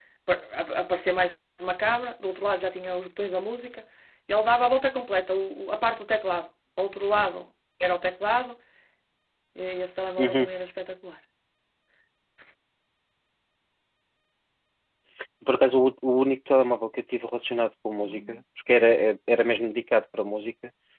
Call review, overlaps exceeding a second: none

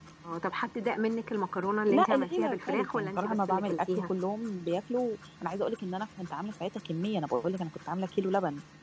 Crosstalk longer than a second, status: present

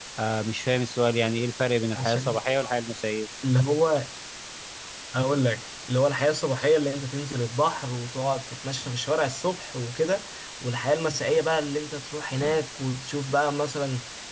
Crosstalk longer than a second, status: none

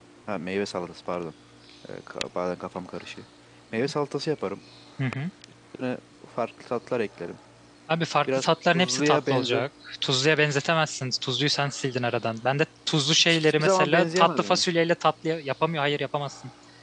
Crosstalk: present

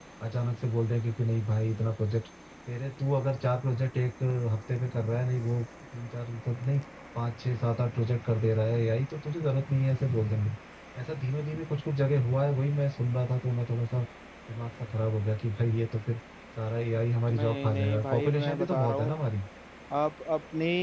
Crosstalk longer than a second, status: present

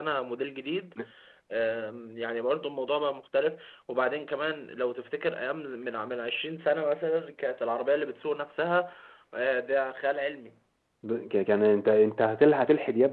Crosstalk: none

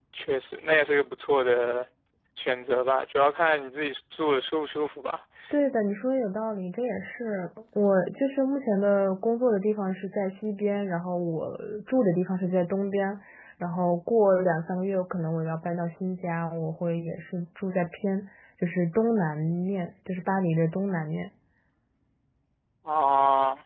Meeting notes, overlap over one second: none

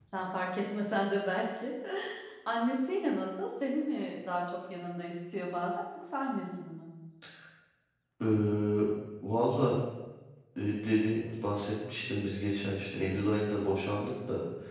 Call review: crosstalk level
none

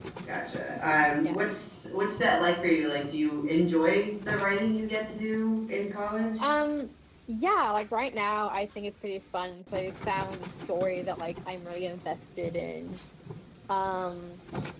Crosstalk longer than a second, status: none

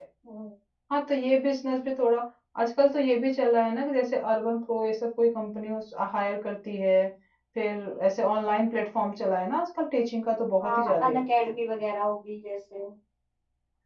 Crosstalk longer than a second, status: none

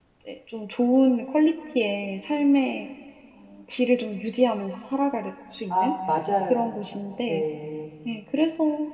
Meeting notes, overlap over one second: none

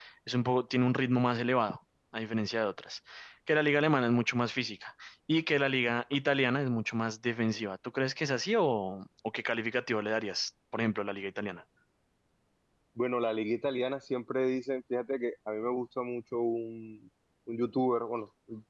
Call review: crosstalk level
none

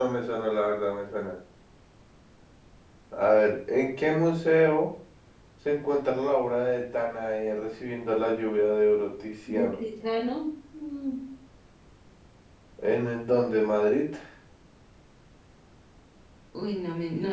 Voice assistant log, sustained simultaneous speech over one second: none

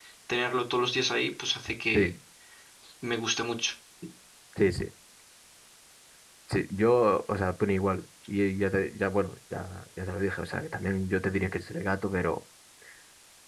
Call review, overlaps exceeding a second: none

